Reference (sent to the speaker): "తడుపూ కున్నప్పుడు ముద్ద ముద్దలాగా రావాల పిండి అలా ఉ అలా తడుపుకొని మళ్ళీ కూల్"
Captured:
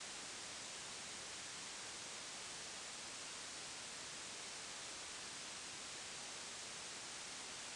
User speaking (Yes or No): No